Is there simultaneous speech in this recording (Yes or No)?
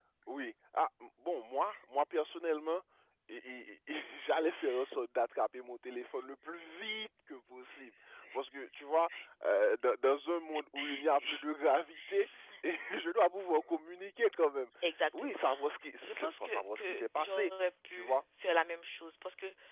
Yes